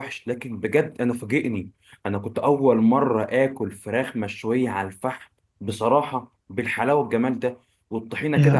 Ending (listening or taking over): listening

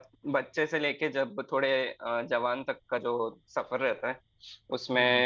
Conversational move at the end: listening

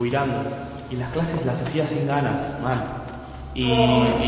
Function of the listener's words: listening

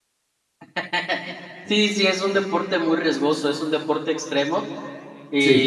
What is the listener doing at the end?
listening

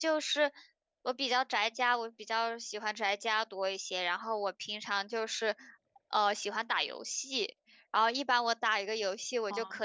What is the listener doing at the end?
listening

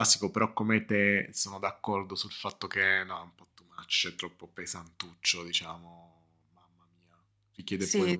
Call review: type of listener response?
taking over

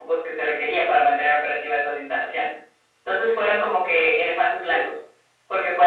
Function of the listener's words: listening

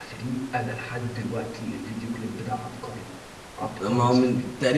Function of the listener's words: taking over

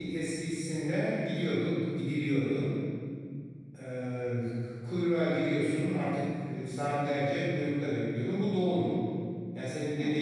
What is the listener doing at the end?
listening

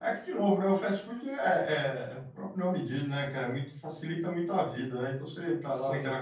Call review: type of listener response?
listening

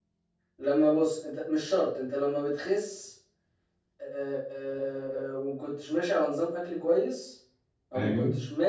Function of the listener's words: listening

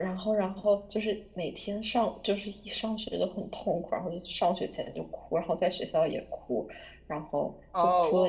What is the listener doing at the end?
taking over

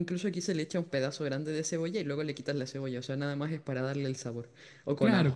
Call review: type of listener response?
taking over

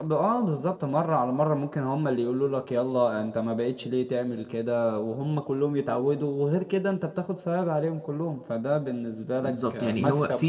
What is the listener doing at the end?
taking over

